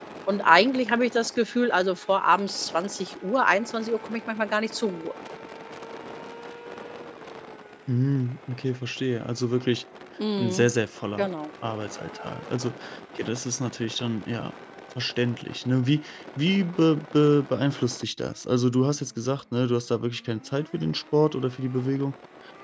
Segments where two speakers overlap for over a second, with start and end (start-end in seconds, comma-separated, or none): none